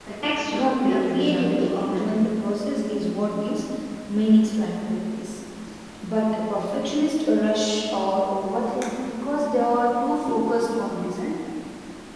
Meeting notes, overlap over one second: present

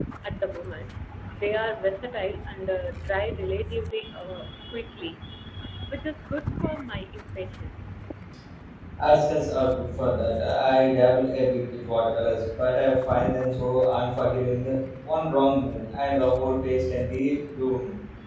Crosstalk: none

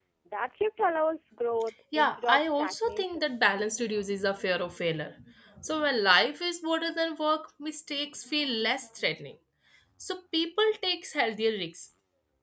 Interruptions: present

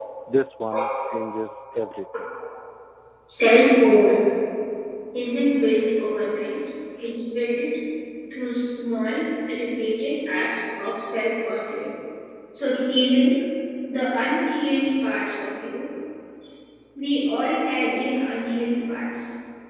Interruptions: none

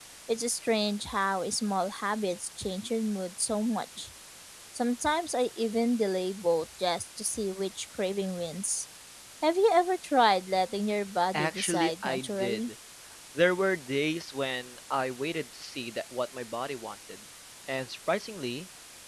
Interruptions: present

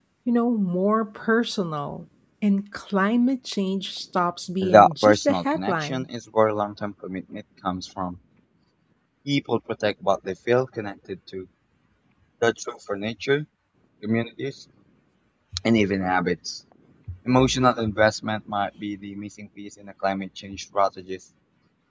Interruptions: present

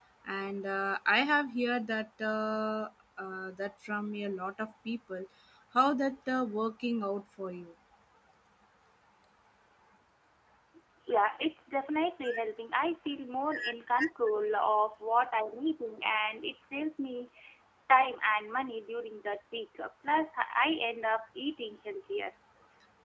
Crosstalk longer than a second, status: none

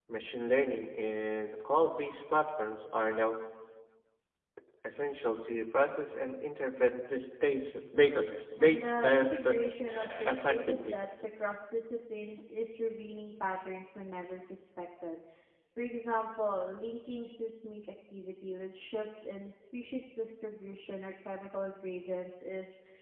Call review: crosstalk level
present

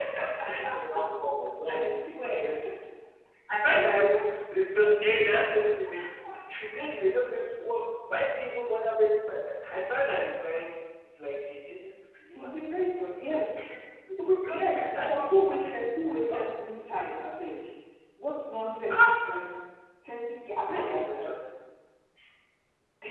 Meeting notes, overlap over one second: present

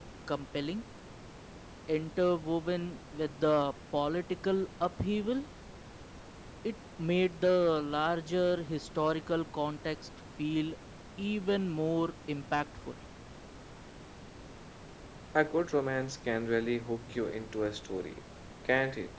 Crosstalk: none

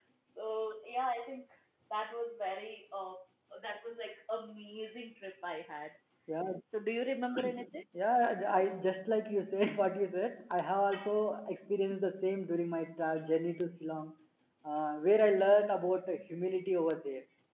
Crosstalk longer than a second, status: none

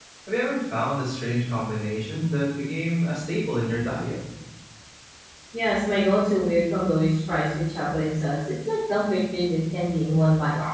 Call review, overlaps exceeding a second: none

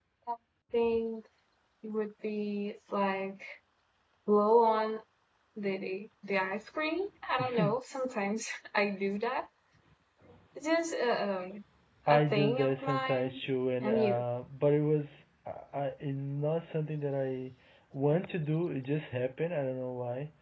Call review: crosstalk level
present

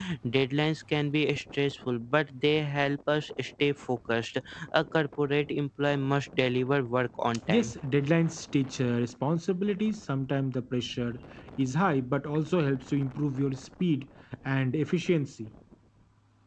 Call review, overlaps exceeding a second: none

